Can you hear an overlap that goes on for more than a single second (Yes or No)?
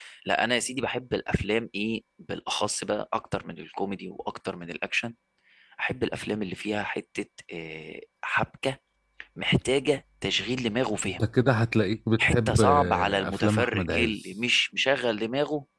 Yes